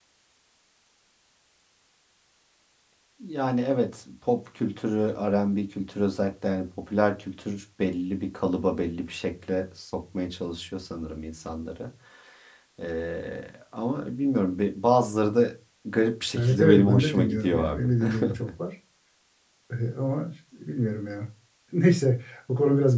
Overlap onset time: 16 s

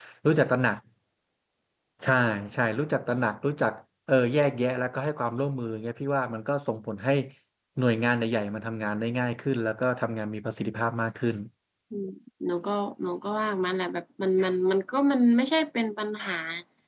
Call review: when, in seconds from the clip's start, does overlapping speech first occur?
none

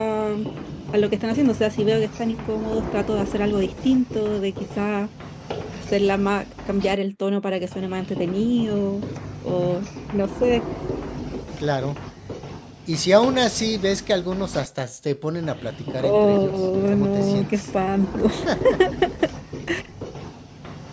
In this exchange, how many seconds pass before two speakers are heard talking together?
16 s

